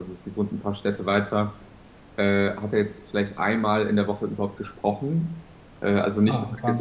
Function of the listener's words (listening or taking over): listening